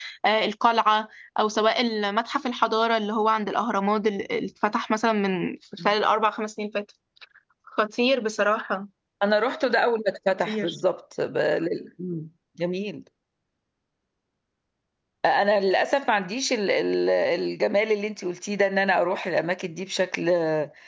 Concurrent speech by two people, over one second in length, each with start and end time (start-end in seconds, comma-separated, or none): none